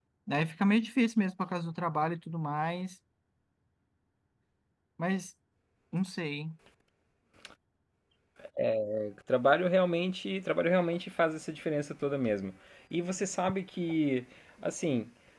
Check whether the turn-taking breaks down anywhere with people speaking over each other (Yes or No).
No